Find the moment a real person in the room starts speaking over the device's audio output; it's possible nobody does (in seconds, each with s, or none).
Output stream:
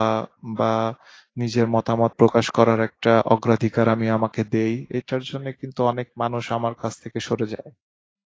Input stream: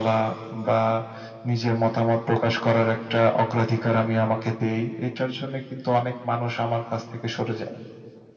none